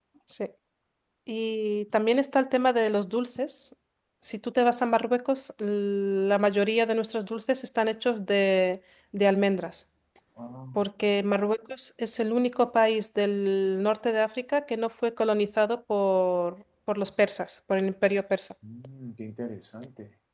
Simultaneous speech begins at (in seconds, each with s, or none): none